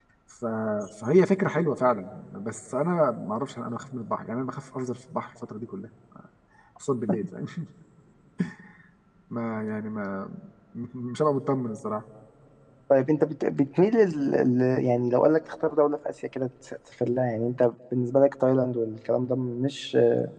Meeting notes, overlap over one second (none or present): none